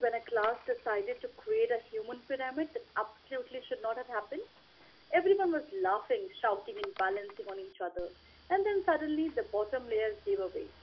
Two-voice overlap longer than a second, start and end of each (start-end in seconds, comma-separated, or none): none